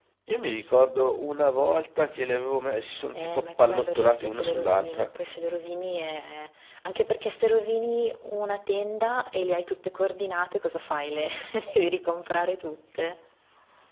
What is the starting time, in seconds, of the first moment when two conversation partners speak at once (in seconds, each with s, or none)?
3.1 s